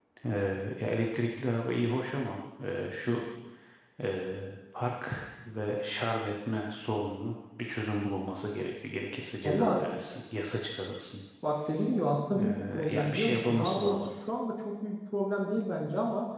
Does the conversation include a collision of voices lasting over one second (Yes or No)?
Yes